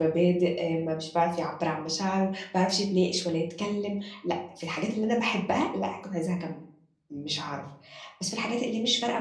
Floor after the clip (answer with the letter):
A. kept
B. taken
A